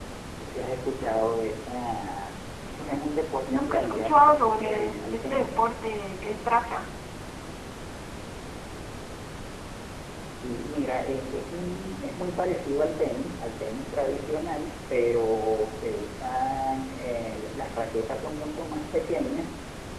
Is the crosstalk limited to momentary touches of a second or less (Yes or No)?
No